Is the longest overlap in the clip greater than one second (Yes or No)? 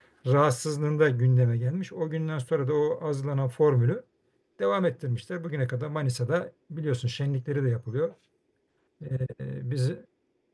No